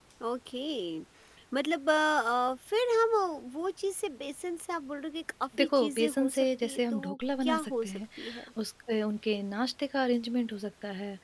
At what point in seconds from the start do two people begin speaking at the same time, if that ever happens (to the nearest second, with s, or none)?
6 s